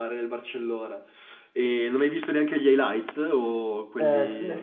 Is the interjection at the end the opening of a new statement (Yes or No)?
Yes